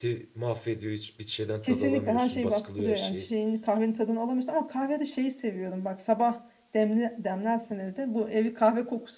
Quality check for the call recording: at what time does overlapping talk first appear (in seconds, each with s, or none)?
1.6 s